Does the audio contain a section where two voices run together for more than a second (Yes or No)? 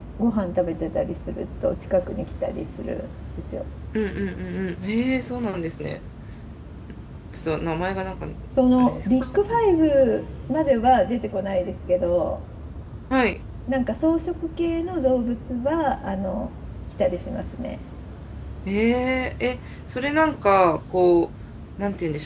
No